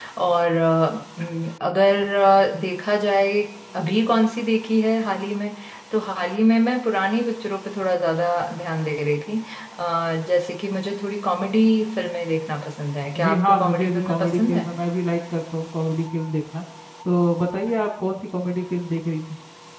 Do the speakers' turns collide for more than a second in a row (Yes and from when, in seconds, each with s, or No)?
Yes, from 13.2 s